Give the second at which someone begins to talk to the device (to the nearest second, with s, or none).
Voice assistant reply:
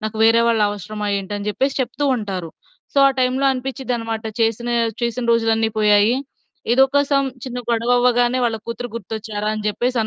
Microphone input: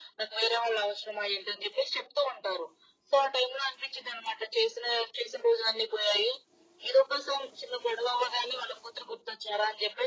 none